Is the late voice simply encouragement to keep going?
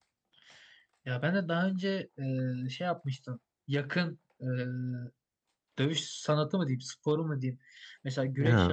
Yes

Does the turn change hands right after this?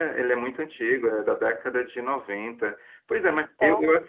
No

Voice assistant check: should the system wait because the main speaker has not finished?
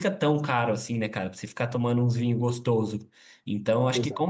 Yes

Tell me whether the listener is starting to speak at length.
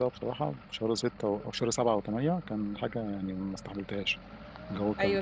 Yes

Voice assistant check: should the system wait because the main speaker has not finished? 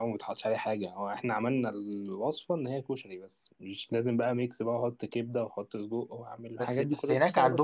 No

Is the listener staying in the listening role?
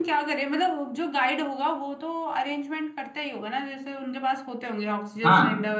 No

